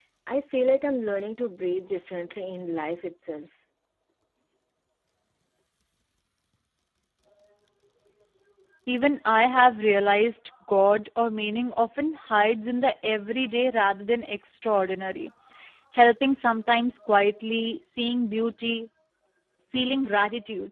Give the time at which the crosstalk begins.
none

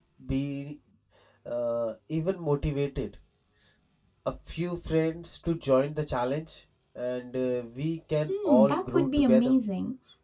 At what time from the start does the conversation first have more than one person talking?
8 s

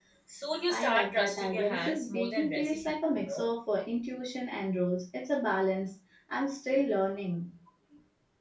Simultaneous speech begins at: 1 s

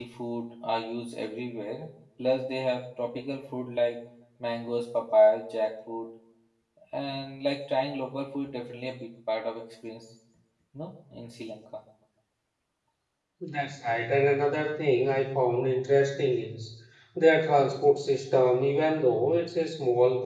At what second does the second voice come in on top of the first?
none

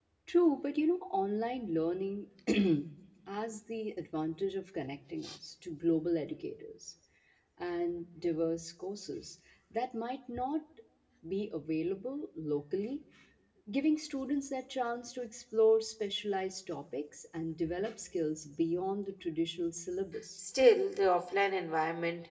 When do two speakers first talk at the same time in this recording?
none

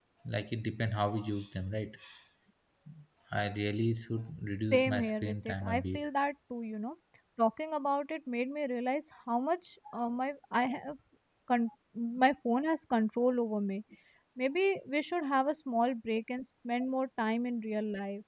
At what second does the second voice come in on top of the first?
5 s

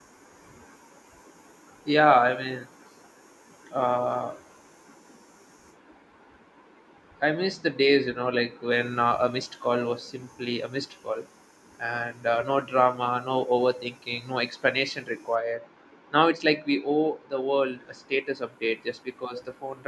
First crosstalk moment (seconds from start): none

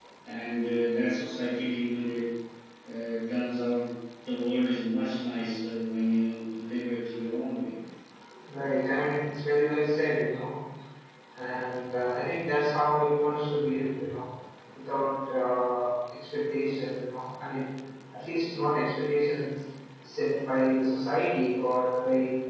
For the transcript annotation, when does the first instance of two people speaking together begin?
none

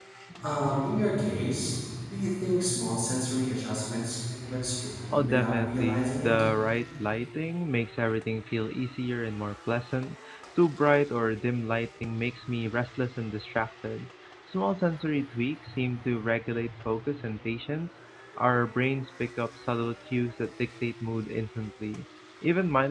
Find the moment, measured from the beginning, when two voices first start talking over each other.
5 s

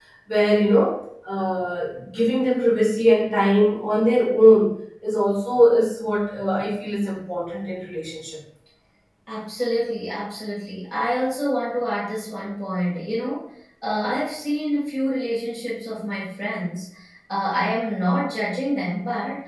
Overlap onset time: none

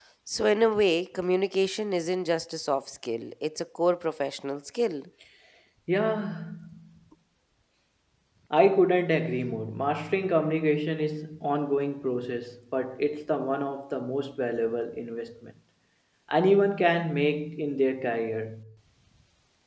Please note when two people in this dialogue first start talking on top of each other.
none

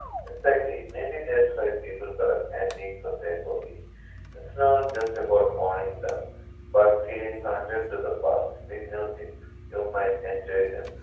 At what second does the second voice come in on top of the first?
none

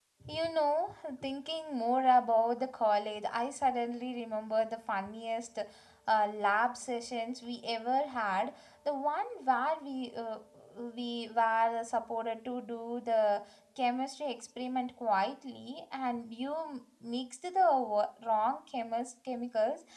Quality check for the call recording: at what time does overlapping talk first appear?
none

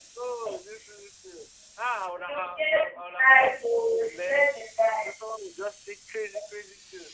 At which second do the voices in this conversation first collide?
2 s

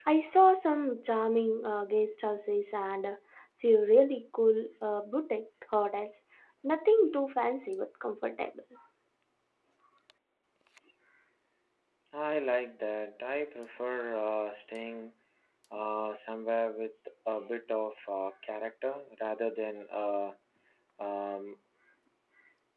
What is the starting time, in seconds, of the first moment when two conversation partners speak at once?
none

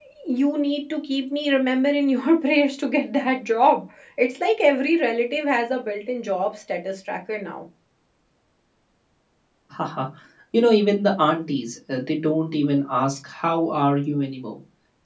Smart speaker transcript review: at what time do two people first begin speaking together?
none

